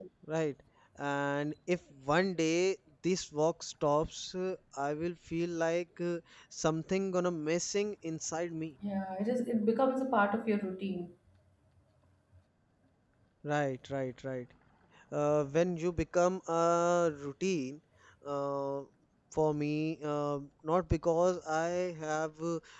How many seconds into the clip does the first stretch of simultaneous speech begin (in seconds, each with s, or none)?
none